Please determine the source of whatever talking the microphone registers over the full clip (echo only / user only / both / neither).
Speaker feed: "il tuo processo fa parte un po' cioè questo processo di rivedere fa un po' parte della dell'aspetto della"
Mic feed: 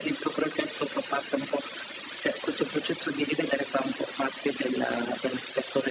echo only